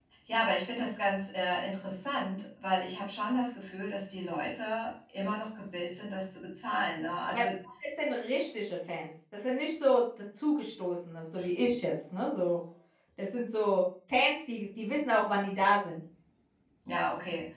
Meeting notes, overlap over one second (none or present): none